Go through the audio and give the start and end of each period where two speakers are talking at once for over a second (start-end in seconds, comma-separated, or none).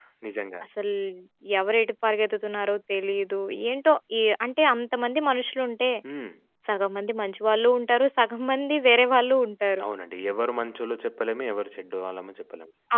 none